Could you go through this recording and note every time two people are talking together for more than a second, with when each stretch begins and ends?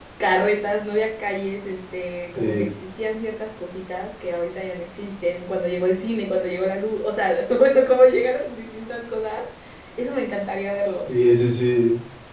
none

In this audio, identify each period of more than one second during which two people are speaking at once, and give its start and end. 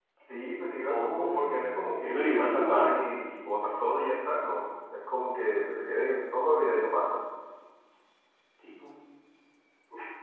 0.8-2.9

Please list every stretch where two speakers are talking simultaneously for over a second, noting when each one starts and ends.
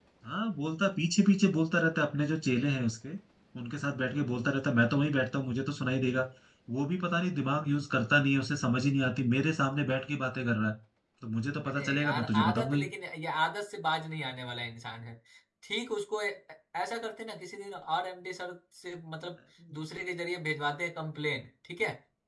11.7-12.9

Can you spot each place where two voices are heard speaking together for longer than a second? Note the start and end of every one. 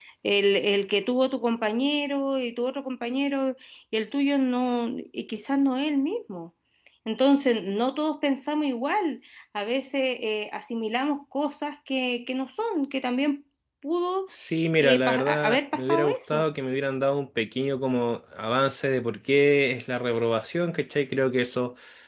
14.8-16.4

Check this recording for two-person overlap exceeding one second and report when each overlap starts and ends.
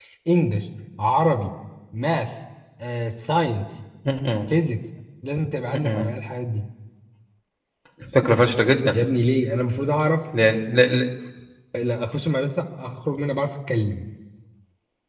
none

